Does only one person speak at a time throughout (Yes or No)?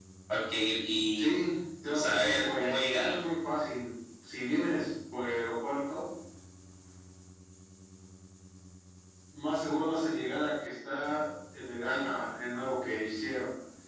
No